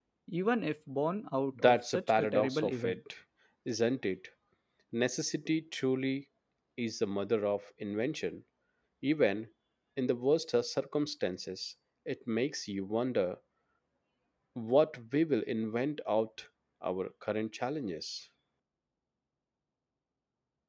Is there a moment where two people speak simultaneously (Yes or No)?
Yes